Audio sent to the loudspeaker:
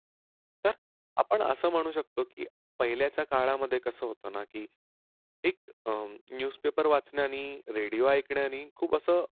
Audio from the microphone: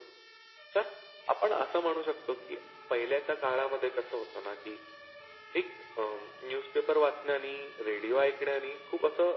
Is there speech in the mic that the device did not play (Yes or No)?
No